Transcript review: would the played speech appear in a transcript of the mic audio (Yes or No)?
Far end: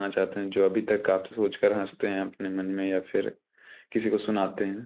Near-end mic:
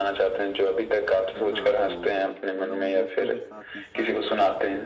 Yes